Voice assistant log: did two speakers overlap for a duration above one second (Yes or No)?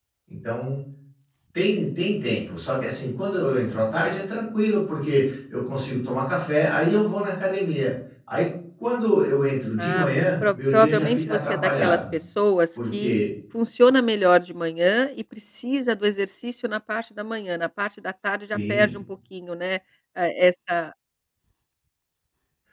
Yes